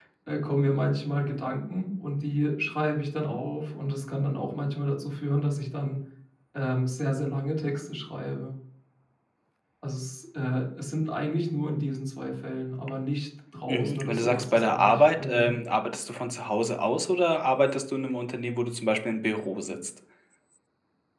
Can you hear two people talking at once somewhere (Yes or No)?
Yes